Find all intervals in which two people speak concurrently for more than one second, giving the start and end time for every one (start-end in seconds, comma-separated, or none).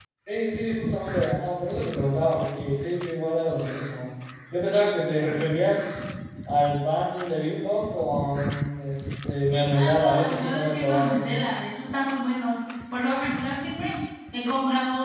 9.7-11.4